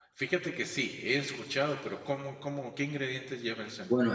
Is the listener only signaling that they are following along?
No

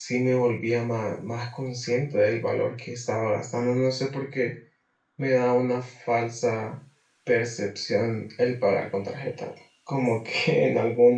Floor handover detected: No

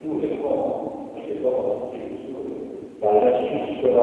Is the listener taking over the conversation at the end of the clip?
Yes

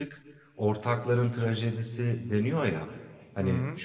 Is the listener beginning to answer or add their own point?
No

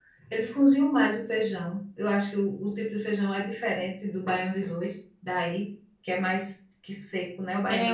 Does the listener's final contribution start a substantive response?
Yes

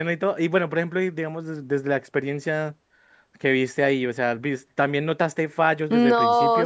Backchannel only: No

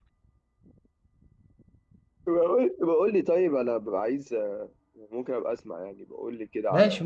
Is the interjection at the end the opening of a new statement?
Yes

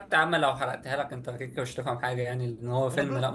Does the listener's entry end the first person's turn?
No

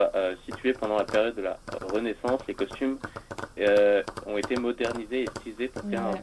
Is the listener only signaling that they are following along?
Yes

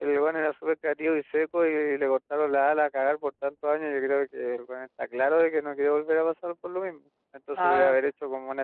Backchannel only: Yes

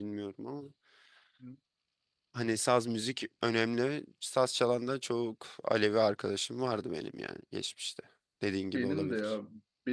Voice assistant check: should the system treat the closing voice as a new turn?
Yes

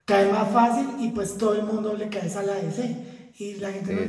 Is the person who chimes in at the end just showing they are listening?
Yes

